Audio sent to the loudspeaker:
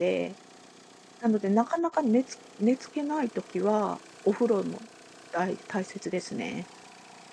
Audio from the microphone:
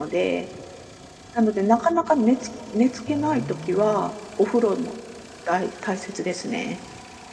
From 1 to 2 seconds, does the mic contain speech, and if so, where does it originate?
echo only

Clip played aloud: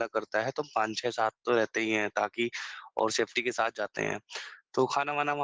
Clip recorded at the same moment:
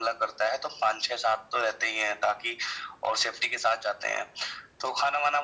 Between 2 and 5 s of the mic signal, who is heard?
echo only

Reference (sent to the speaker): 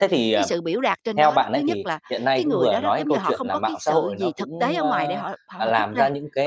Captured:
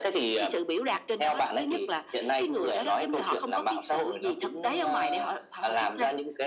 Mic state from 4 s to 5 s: echo only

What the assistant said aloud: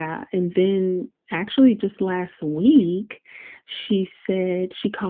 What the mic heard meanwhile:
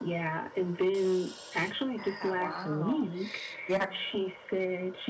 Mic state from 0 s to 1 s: echo only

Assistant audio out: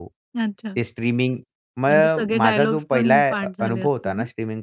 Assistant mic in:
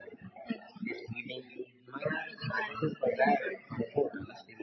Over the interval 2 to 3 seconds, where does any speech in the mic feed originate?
echo only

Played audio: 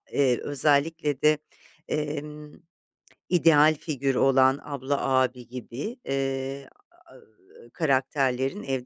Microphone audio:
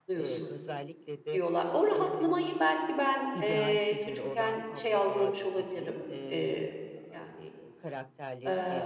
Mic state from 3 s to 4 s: both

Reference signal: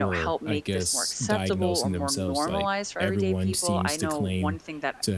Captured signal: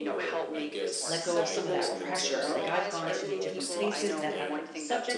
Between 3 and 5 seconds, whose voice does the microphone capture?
both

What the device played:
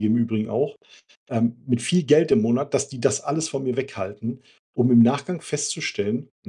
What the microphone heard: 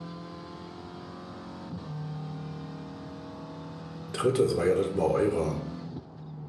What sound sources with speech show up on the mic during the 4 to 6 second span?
user only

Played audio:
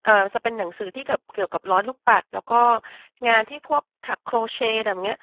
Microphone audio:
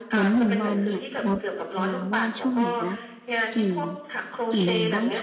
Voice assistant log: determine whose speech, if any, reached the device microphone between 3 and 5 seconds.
both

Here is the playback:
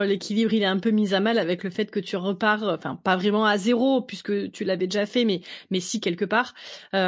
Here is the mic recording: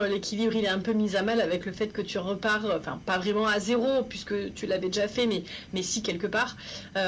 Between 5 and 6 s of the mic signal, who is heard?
echo only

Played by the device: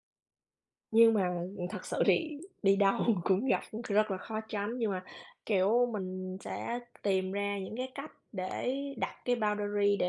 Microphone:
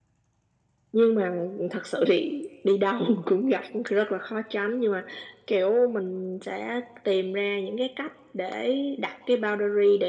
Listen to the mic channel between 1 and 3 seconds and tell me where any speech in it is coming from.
echo only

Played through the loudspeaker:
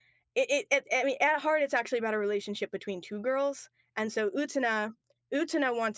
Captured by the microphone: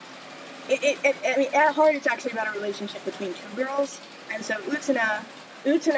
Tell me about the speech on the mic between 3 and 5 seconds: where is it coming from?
echo only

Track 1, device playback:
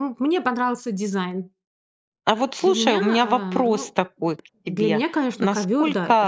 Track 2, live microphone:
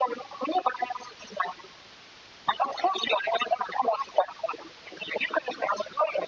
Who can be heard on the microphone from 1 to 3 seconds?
echo only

